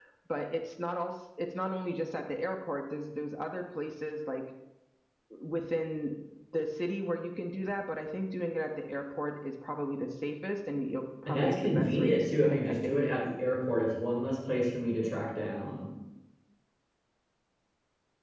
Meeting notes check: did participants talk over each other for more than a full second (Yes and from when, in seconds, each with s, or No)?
Yes, from 11.3 s